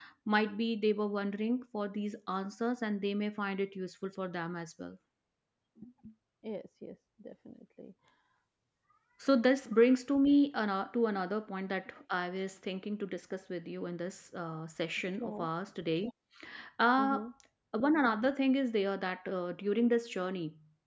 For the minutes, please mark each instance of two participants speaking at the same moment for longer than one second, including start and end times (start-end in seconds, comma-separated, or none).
none